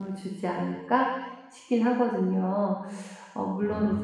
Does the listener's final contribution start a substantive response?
No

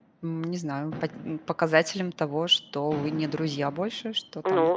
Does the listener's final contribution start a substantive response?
Yes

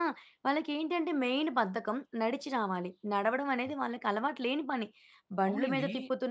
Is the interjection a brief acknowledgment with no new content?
Yes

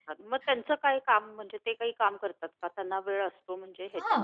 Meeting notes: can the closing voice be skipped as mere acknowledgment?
No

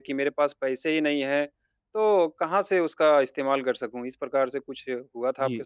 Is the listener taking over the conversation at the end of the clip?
Yes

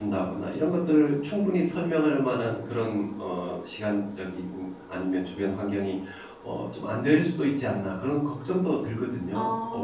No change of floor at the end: No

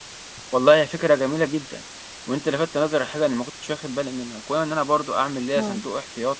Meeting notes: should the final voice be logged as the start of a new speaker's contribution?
No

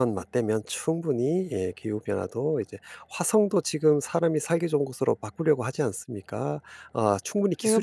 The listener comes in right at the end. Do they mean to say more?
Yes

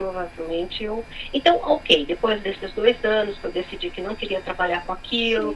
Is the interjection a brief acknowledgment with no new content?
No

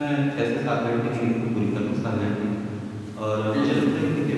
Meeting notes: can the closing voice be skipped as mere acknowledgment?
Yes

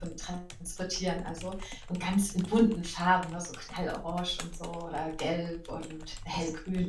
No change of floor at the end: Yes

